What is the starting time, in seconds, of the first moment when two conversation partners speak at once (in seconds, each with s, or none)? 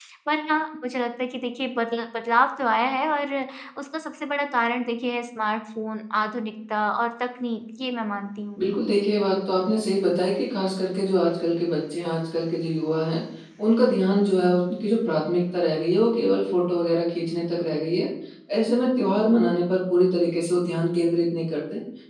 none